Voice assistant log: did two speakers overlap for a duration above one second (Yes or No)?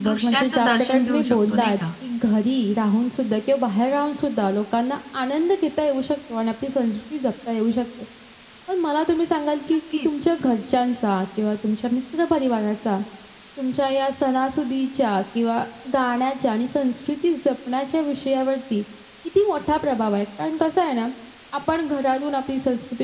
Yes